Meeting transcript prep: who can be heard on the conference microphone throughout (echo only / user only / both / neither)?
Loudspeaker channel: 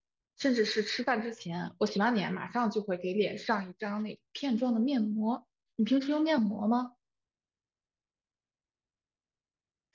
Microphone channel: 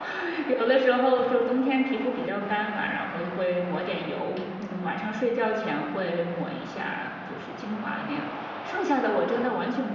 user only